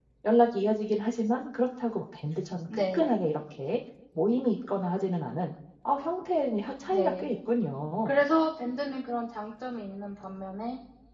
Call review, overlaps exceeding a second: none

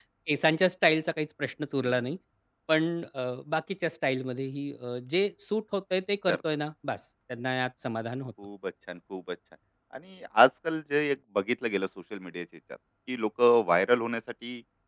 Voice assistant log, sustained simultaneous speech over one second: none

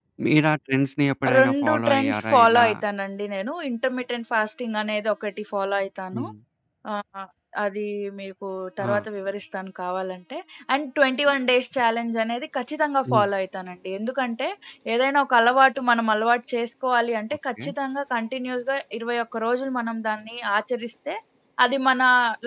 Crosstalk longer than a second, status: present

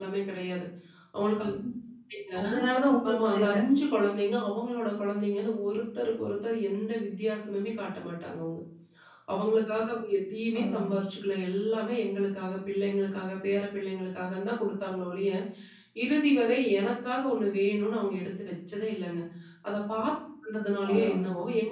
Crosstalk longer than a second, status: none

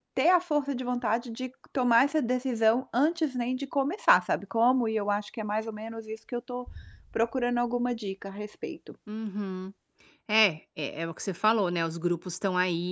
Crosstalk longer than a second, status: none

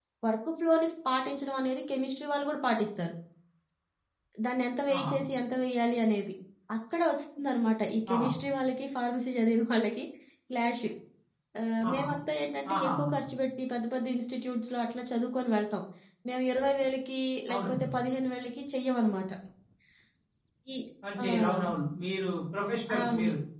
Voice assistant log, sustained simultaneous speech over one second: none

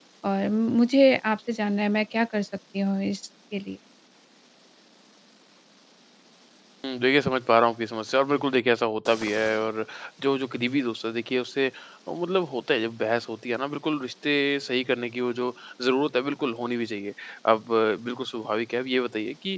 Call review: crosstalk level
none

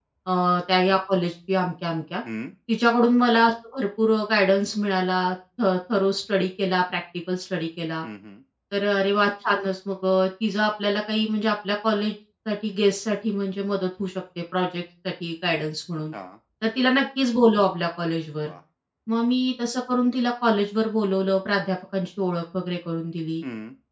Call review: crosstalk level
none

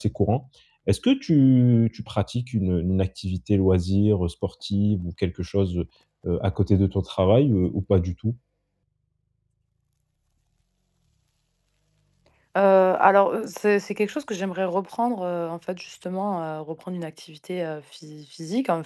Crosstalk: none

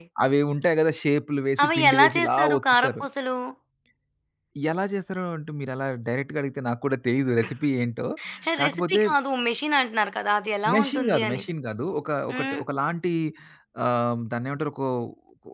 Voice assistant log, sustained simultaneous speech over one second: present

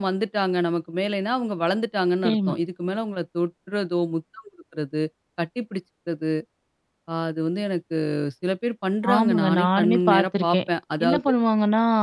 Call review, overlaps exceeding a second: present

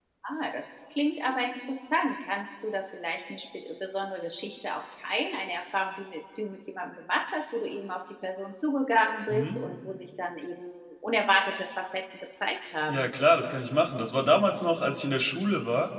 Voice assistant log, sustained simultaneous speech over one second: none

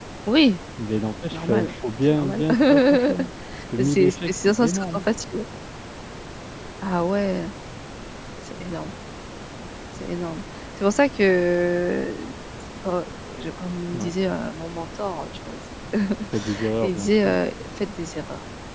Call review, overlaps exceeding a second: present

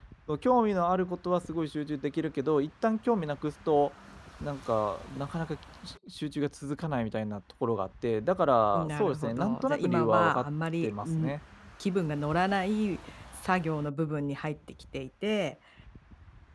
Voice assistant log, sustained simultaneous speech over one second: present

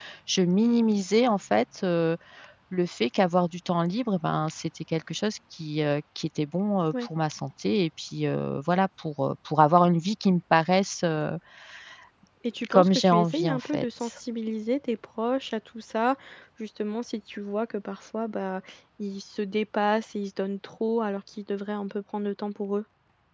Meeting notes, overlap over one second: present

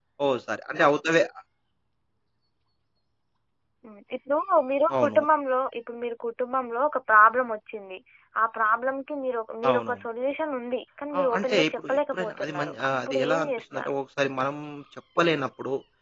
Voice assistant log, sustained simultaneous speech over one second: present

